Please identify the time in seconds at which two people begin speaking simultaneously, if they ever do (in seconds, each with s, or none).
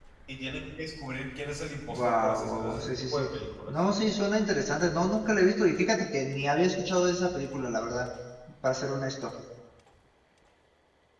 1.9 s